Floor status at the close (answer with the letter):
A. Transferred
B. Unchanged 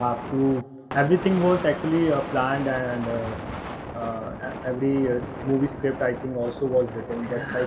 A